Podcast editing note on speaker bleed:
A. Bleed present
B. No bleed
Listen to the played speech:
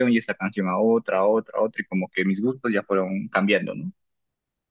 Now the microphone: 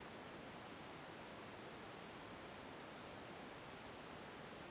B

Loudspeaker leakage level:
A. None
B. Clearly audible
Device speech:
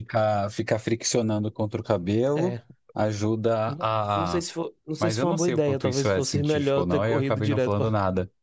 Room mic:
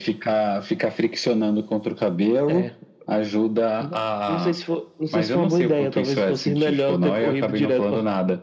B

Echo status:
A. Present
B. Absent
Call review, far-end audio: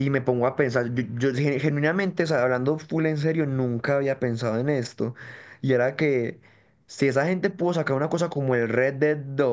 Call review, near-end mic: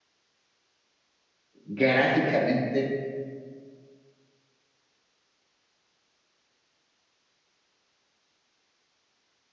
B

